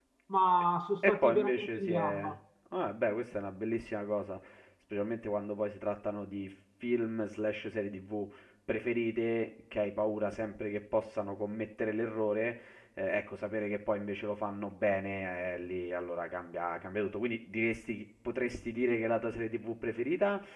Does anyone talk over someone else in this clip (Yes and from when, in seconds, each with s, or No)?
Yes, from 1.0 s